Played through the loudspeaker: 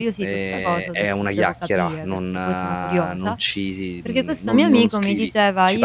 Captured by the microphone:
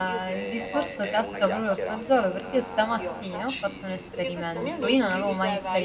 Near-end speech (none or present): present